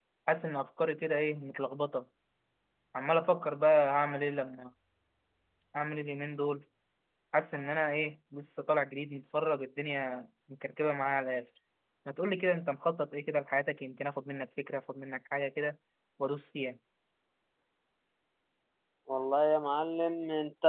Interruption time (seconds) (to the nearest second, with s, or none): none